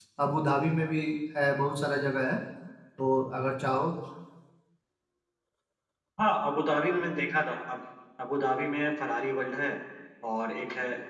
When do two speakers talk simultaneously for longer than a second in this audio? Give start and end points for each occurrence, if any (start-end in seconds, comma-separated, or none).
none